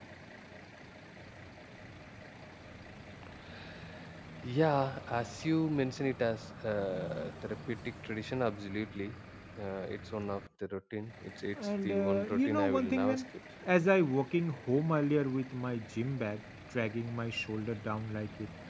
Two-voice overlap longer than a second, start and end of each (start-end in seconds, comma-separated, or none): 11.8-13.2